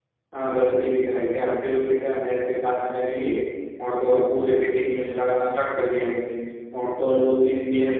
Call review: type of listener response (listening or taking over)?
listening